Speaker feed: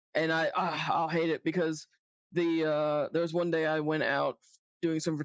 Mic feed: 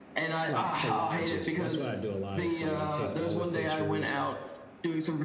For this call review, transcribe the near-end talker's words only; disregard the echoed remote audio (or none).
like, collages. That's what I do a lot. It's like I take all the pictures